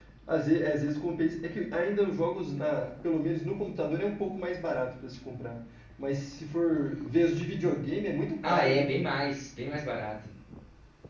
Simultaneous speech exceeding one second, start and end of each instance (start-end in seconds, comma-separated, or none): none